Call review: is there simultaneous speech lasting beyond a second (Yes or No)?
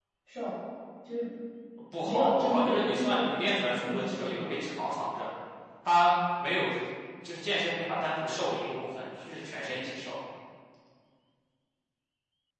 Yes